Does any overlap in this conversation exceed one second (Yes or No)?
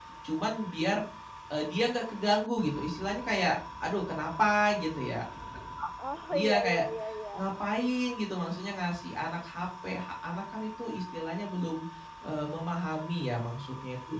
No